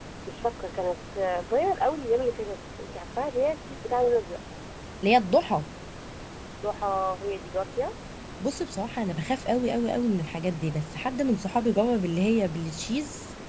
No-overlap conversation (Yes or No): Yes